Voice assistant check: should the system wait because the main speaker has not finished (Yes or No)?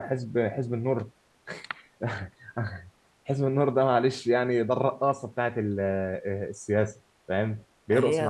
No